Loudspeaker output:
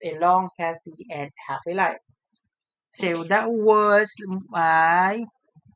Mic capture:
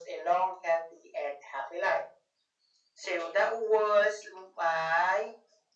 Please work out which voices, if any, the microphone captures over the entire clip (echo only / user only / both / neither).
echo only